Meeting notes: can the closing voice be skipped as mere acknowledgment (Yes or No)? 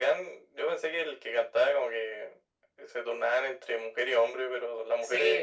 No